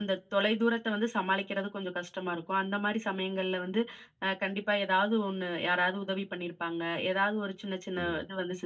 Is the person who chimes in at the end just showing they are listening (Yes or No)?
Yes